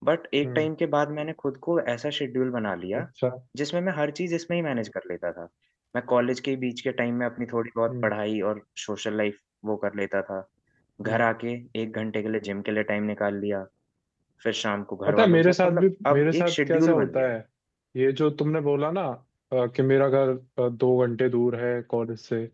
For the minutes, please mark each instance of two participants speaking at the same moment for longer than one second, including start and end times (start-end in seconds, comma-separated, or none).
15.1-17.3